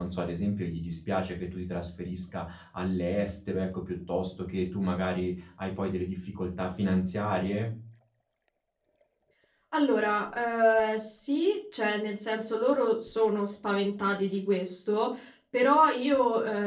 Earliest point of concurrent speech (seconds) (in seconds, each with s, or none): none